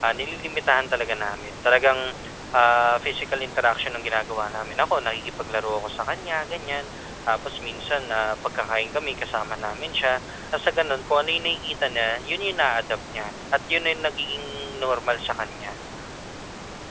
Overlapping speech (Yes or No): No